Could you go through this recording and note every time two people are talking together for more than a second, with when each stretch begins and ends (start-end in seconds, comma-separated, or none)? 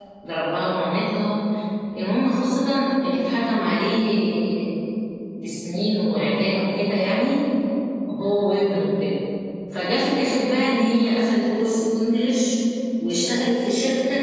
none